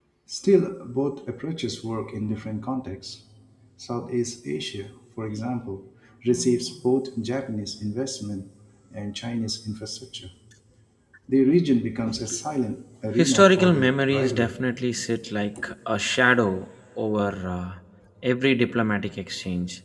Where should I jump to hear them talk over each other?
13 s

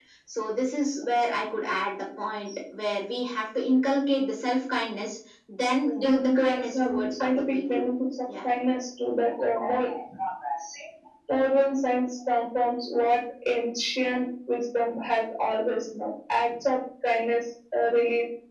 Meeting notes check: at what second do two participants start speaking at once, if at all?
6 s

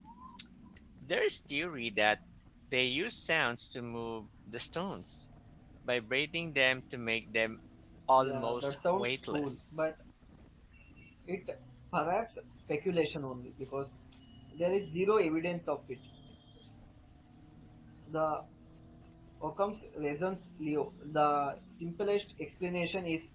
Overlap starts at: 8 s

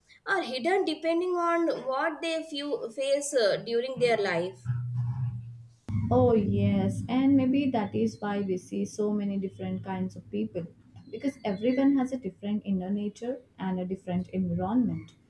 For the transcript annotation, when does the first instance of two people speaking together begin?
none

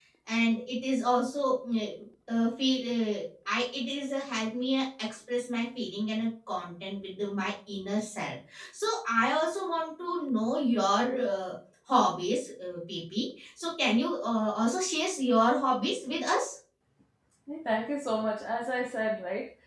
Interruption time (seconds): none

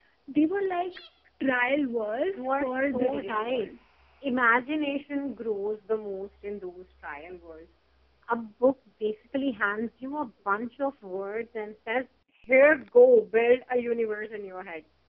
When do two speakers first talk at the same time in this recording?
2 s

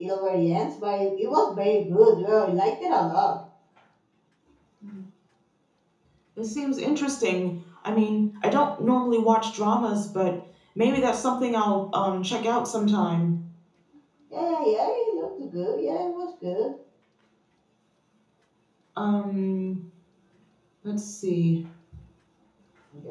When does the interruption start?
none

